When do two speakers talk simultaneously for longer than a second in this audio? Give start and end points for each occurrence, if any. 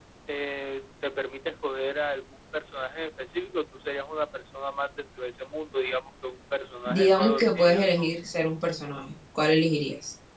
6.9-8.1

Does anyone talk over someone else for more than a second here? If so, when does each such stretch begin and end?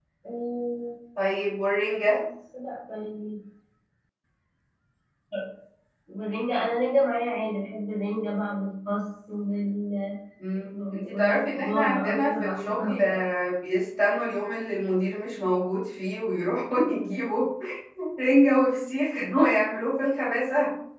10.7-13.2

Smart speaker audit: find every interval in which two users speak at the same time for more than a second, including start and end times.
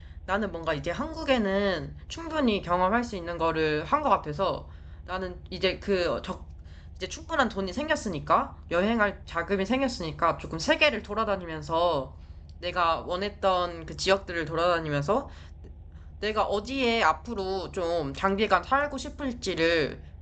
none

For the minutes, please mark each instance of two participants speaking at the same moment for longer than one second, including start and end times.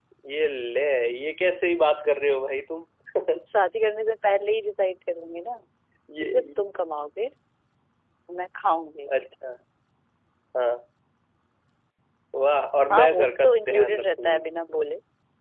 12.9-14.4

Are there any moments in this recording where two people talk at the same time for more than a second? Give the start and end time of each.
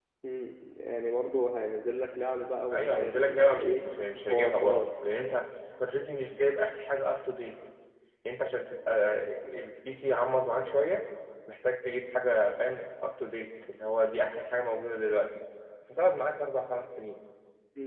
2.7-4.9

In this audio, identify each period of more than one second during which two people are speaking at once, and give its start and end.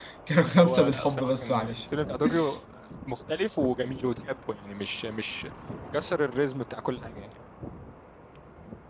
0.6-1.8

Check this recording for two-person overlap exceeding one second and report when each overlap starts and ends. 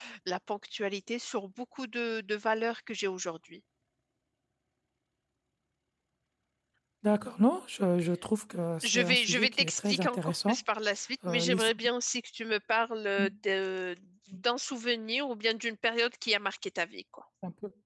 8.8-10.6

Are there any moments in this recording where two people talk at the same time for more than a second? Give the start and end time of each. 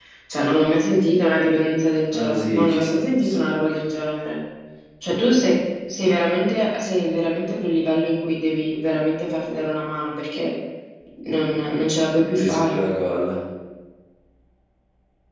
2.1-3.8

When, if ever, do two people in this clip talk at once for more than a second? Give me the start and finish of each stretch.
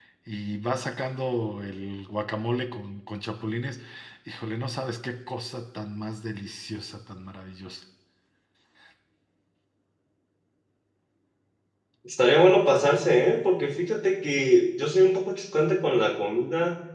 none

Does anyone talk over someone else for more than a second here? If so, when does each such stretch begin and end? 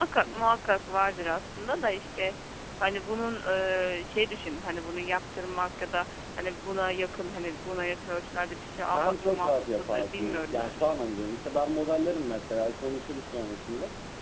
8.8-10.8

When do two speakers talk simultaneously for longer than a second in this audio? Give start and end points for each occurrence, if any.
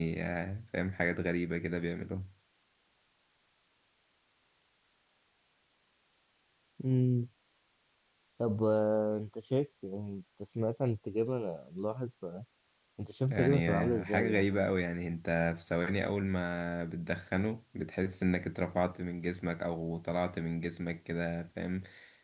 13.3-14.7

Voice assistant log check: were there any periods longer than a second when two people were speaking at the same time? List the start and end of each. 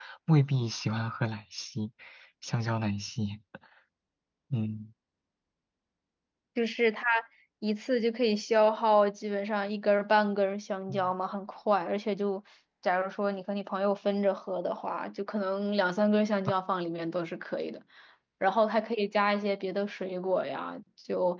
none

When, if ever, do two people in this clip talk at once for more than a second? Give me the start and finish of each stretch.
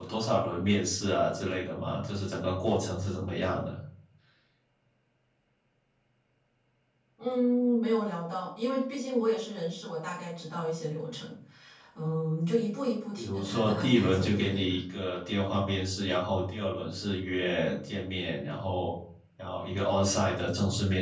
13.2-14.8

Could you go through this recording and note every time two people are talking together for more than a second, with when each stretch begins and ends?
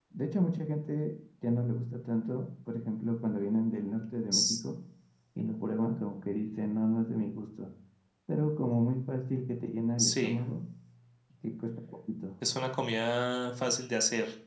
none

